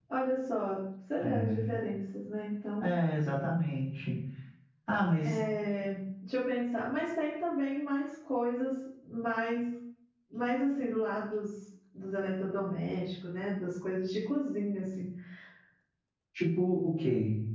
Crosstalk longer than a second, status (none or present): none